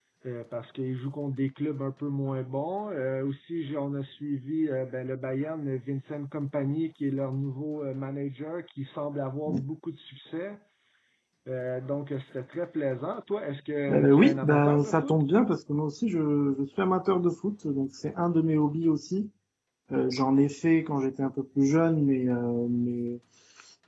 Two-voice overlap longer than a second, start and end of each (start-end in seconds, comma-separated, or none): 13.9-15.1